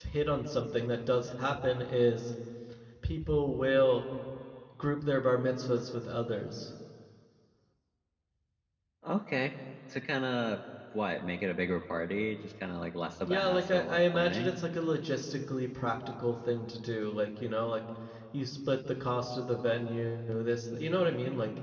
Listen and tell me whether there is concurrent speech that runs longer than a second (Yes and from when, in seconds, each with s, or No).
Yes, from 13.2 s